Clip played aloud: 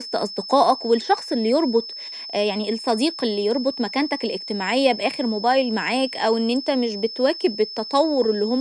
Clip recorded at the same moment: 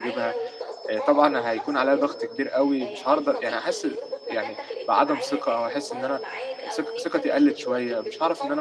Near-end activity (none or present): present